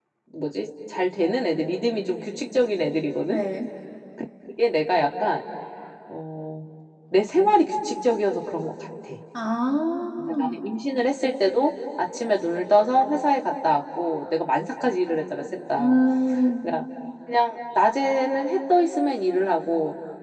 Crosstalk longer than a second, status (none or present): none